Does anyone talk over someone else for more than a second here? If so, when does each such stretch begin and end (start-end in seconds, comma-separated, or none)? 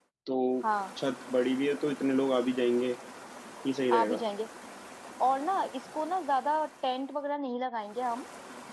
none